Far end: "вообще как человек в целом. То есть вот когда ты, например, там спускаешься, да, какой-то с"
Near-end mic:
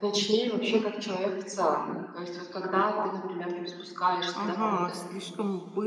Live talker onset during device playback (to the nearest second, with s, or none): 4 s